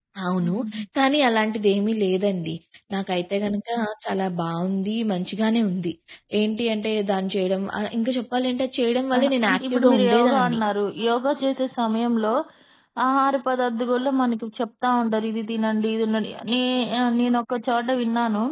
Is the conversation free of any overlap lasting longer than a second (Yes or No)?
No